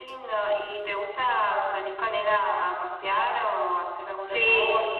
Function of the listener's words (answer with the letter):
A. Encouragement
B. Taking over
B